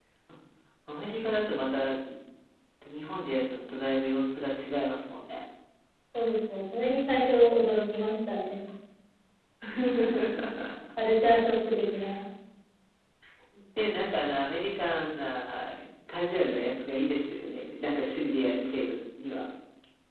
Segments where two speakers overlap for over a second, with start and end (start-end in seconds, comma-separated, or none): none